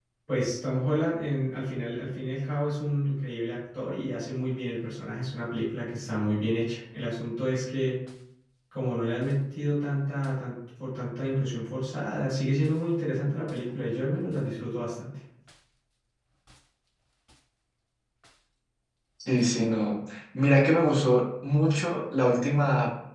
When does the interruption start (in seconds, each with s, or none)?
none